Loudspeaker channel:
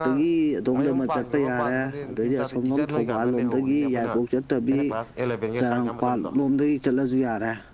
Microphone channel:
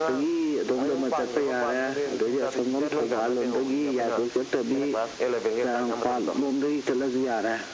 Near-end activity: none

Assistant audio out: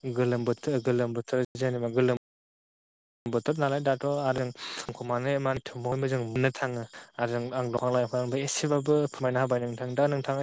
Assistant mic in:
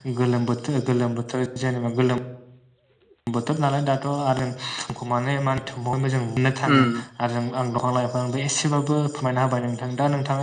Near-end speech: present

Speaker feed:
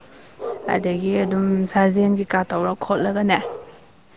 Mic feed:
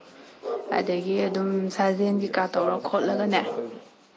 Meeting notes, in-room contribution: present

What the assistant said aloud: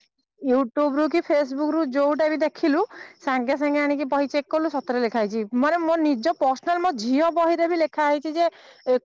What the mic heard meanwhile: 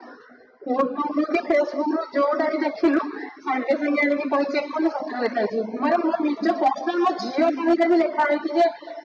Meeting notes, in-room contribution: none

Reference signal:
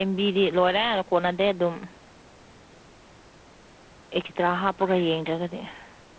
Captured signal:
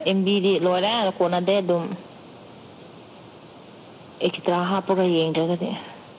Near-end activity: none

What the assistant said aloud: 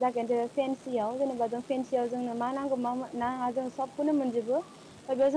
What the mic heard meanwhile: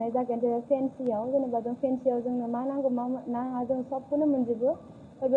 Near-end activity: none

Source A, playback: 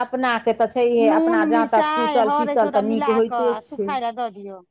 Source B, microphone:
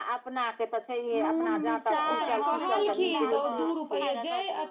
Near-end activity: present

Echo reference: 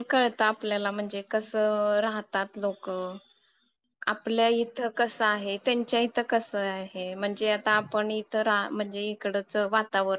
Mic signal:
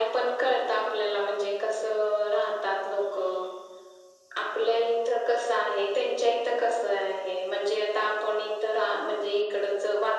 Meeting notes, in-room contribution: none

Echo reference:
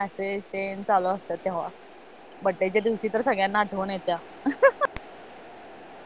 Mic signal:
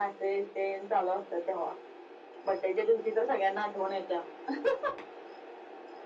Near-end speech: none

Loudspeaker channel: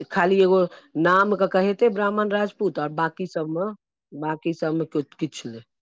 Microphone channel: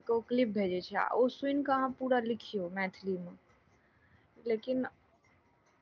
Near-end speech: present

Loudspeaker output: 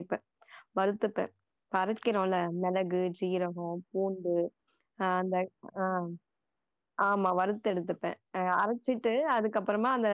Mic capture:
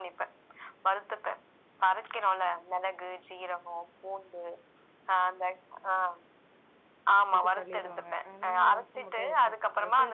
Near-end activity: present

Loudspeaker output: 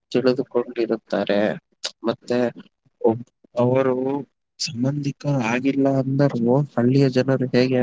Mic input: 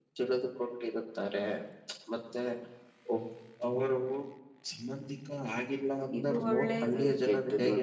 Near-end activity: present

